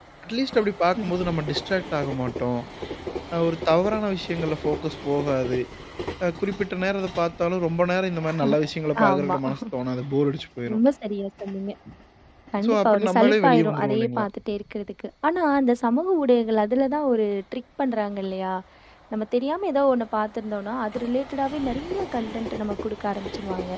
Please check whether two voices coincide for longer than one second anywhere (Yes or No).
Yes